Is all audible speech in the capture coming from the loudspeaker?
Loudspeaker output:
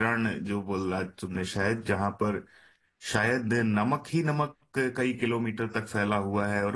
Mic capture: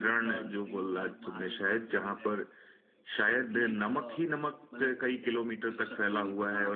No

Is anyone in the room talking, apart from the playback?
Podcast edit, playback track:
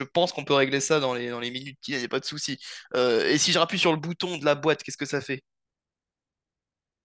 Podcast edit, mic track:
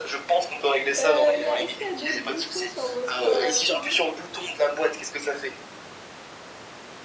Yes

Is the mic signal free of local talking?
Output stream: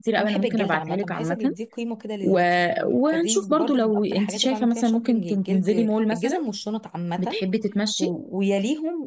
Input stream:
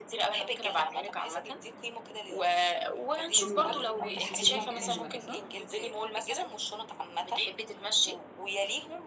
No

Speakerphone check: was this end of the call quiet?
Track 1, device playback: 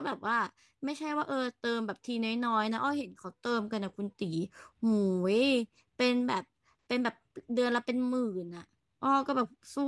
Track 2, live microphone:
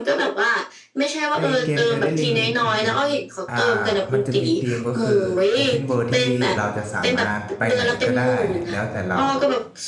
No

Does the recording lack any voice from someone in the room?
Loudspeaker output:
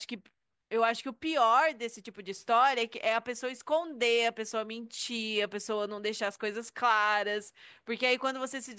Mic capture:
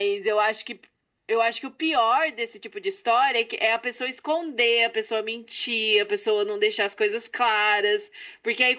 Yes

